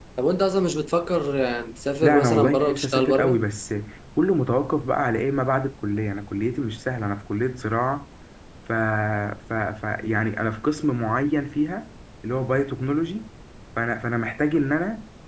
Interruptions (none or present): present